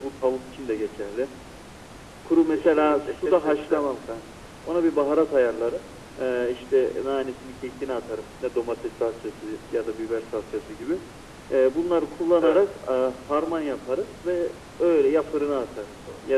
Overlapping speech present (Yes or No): Yes